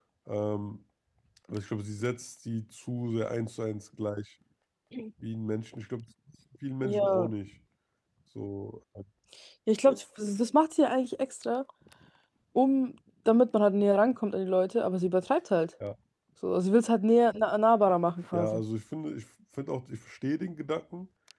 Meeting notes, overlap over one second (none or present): none